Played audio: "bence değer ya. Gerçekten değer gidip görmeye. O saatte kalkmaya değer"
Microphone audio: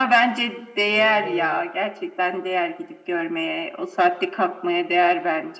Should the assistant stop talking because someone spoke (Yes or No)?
Yes